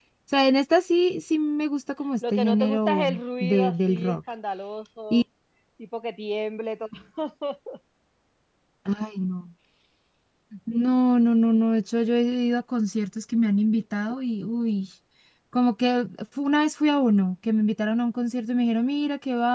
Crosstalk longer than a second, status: present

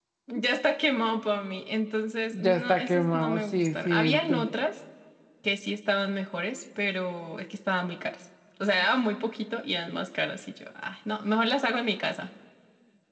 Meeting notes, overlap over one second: present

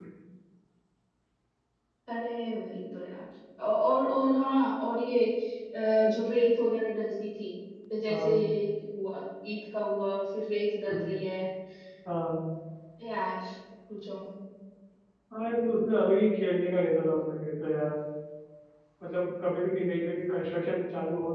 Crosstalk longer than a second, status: none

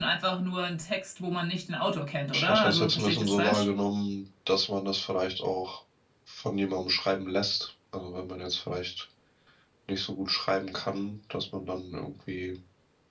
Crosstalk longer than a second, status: present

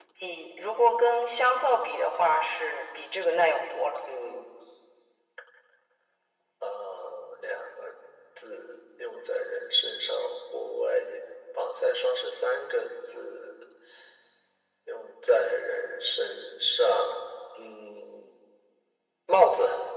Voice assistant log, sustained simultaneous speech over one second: none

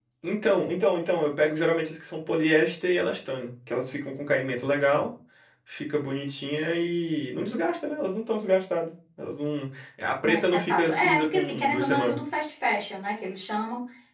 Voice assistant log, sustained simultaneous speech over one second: present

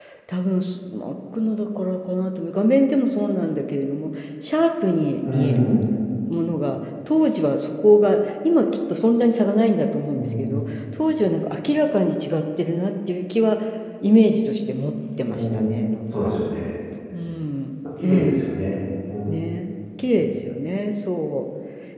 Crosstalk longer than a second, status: none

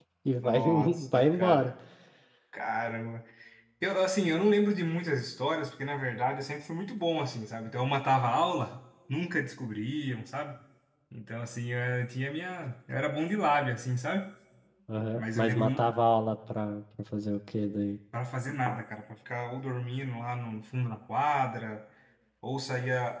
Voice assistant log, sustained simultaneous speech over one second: present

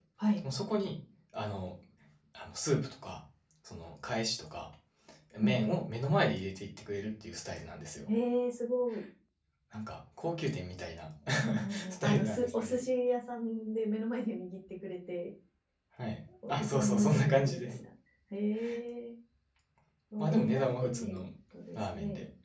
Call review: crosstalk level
present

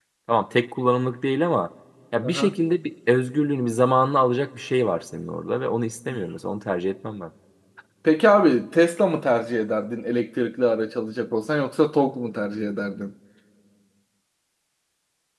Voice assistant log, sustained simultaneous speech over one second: none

